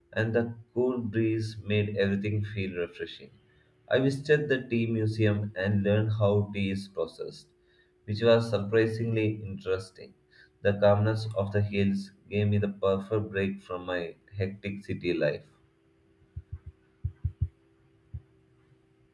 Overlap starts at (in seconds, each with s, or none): none